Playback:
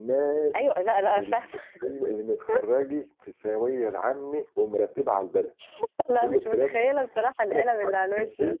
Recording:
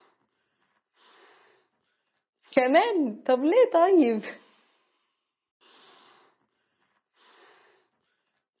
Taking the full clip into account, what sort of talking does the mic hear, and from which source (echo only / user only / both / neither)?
user only